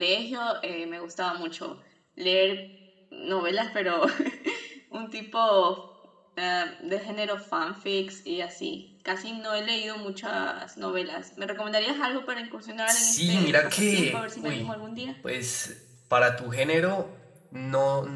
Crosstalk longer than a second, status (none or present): present